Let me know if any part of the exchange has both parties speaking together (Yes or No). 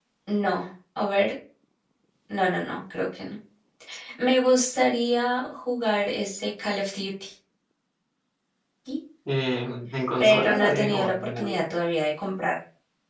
Yes